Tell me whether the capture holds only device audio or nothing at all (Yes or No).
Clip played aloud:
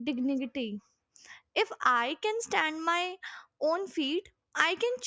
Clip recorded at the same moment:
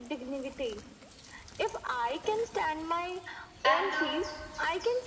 No